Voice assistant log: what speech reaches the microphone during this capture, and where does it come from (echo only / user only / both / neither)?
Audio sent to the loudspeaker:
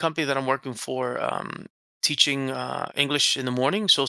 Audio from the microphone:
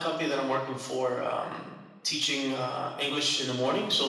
echo only